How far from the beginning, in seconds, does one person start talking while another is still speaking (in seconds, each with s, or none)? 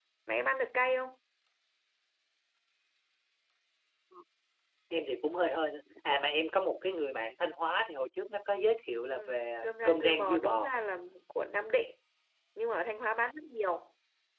9.1 s